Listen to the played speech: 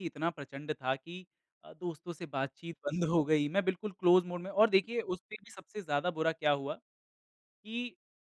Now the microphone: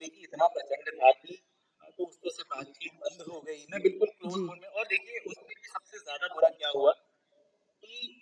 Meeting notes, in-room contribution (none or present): present